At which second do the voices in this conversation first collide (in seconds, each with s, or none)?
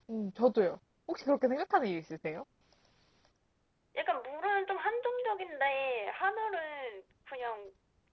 none